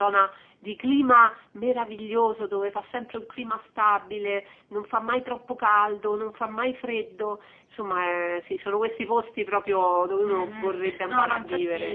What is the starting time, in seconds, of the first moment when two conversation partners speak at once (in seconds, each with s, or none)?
10.2 s